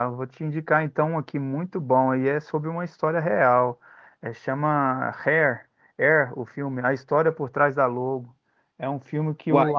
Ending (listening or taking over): listening